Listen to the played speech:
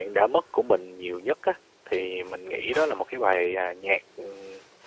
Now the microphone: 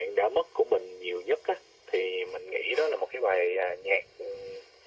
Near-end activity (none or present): none